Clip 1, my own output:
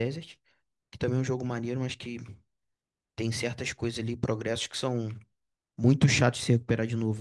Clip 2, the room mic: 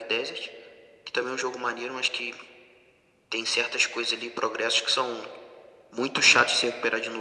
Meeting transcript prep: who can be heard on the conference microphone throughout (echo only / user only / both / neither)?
echo only